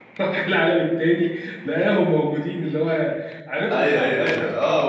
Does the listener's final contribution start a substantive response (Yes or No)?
Yes